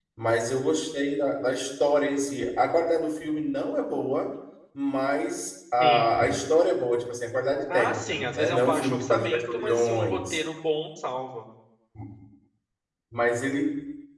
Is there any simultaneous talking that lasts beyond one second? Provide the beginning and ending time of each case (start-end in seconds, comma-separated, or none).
7.7-10.4